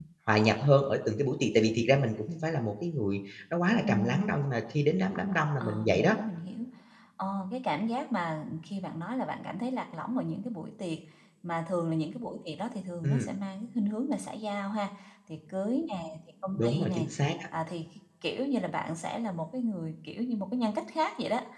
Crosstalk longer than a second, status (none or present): none